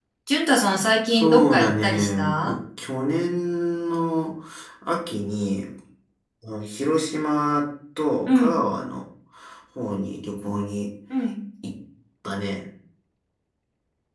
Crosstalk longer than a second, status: present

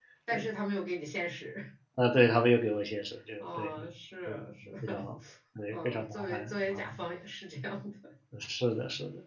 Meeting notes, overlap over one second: present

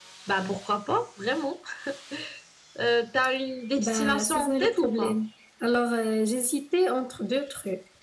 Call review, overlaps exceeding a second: present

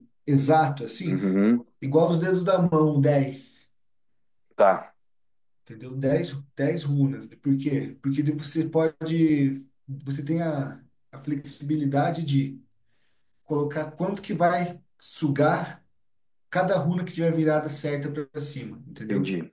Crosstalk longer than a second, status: none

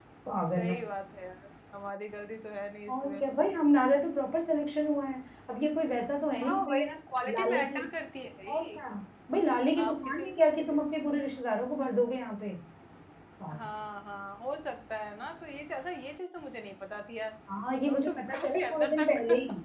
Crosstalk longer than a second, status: present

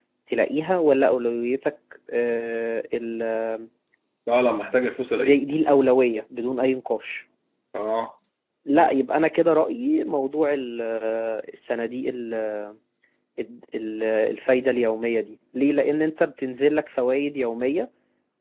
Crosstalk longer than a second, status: none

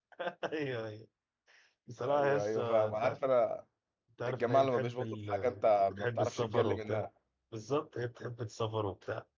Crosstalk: present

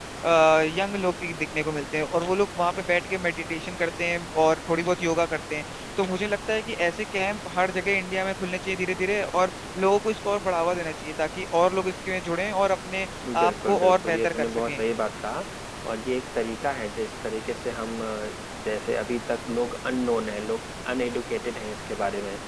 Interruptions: present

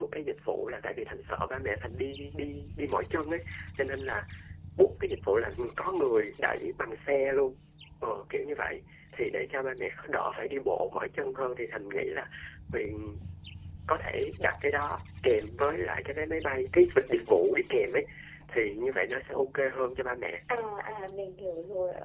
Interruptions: none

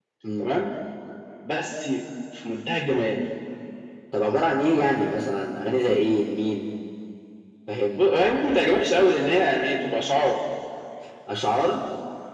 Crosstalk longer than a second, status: none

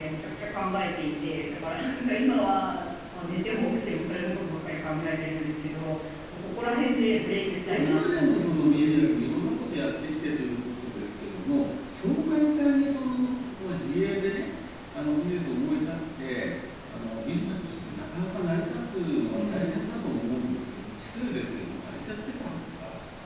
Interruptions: present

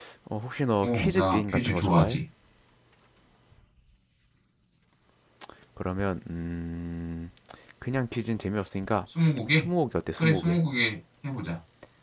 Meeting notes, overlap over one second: present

